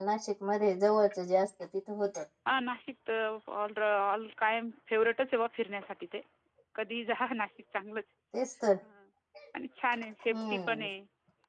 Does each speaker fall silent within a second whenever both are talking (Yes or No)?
Yes